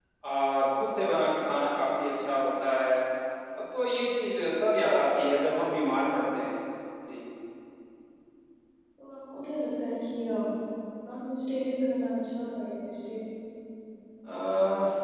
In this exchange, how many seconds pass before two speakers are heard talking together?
none

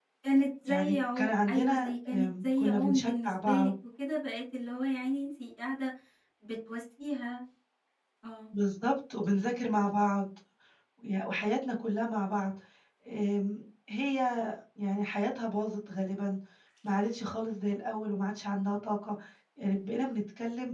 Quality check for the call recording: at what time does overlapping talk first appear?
0.7 s

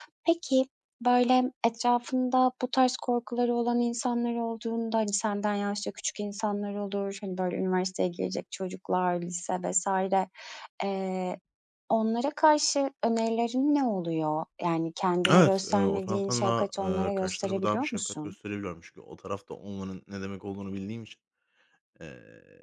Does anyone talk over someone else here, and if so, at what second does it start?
15.2 s

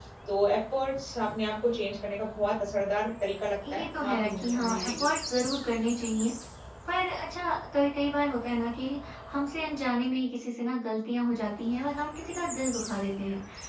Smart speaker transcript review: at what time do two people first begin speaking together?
3.6 s

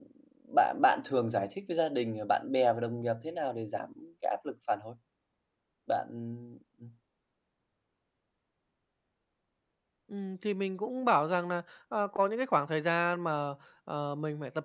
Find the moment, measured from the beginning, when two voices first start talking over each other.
none

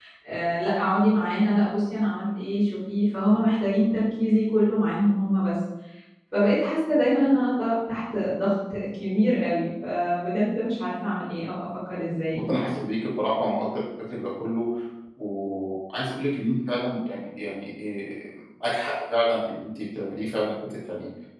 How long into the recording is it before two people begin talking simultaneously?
none

